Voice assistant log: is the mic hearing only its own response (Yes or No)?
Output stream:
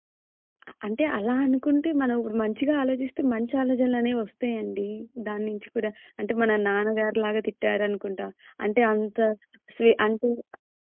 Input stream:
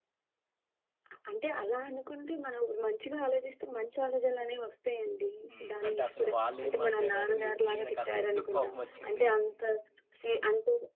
No